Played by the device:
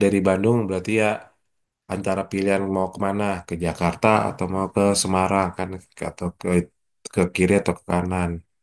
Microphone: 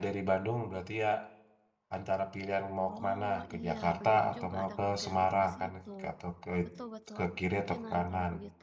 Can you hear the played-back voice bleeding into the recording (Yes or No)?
Yes